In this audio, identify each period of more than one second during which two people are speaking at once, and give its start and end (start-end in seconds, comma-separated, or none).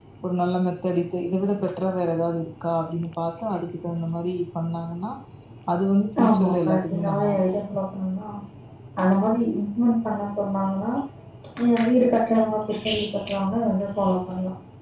6.2-7.6